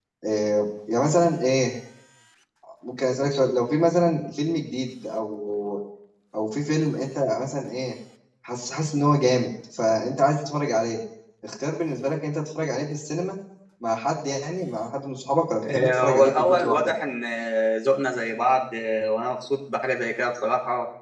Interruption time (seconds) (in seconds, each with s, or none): 15.6 s